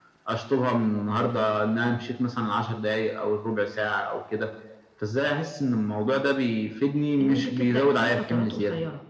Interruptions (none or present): present